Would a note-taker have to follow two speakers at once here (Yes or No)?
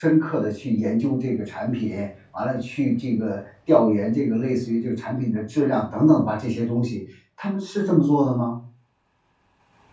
No